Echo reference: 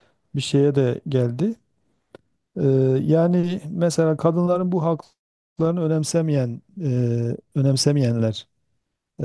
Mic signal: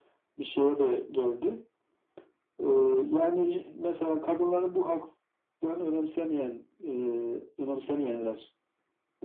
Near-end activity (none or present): none